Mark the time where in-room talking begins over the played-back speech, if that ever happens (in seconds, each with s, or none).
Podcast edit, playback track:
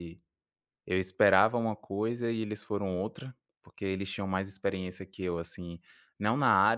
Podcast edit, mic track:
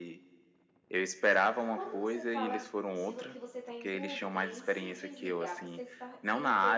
1.7 s